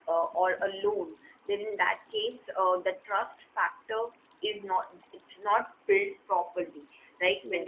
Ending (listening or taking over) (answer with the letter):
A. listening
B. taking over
A